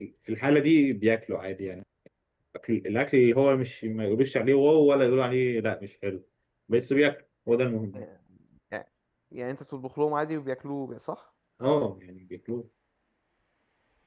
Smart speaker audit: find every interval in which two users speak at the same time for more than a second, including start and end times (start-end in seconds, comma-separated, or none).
none